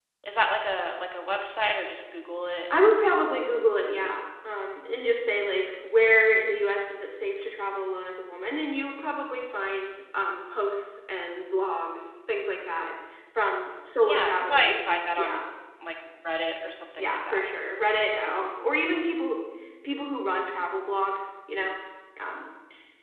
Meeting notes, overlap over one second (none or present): present